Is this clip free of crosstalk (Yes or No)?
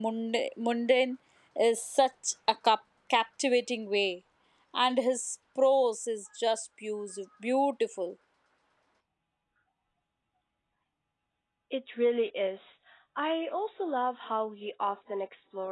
Yes